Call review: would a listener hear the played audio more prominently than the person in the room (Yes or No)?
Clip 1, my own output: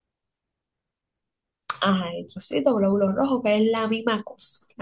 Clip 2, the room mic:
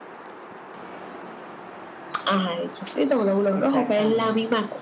Yes